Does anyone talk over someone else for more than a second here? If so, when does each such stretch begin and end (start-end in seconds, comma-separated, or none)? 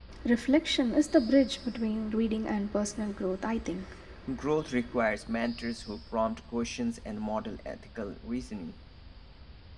none